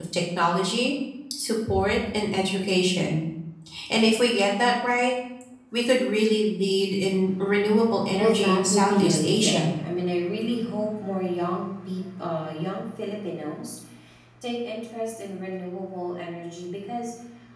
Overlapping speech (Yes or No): Yes